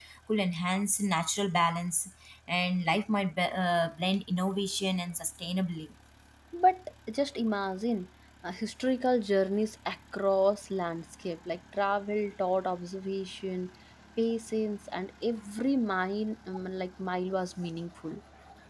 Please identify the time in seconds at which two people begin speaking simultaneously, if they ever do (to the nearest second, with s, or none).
none